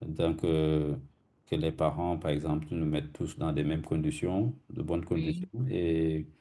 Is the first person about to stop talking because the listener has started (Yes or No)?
No